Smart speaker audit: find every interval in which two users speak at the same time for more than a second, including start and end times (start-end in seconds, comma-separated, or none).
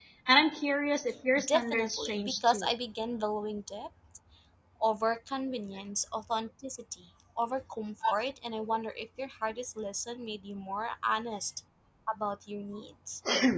1.5-2.7